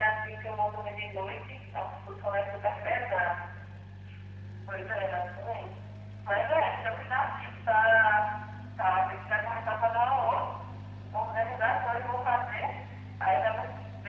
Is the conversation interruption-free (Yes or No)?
Yes